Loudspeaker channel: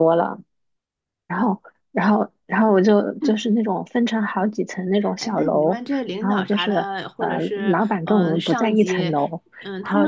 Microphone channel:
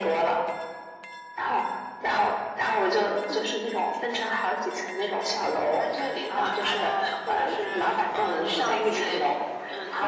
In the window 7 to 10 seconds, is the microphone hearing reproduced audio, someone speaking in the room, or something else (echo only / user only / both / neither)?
echo only